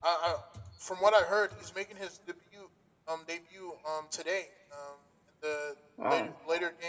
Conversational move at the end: listening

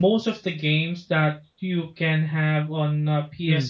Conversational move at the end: listening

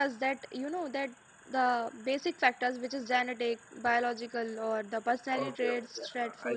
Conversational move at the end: taking over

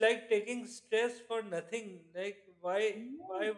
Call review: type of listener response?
listening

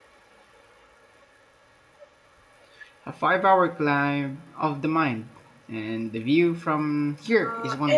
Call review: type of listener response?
taking over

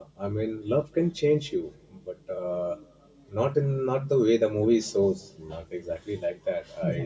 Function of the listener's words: listening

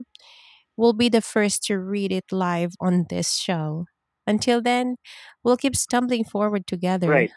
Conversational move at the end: taking over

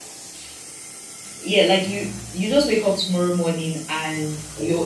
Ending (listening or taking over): listening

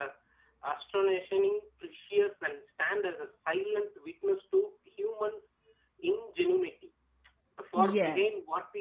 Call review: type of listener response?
listening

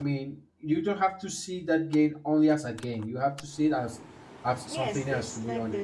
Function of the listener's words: taking over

